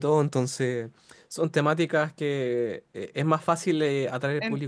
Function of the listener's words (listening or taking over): taking over